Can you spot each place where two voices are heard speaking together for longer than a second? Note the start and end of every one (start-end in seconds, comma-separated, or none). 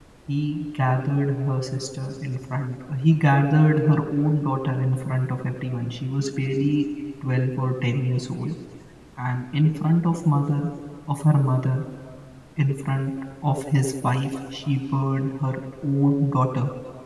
none